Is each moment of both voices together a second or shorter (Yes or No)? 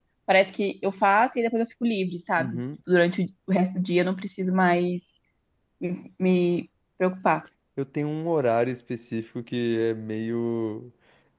Yes